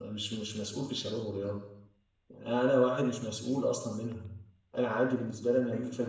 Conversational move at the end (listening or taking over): listening